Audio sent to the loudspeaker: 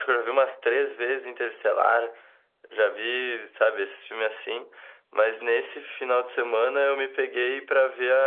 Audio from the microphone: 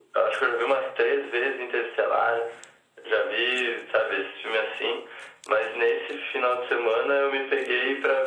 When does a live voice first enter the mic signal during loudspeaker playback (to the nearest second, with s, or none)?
none